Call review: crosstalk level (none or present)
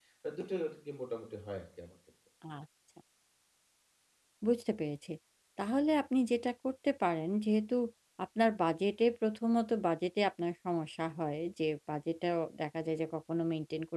none